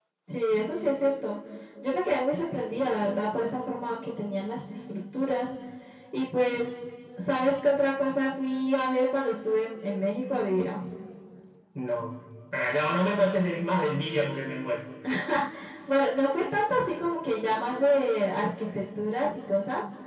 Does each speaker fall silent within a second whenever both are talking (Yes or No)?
Yes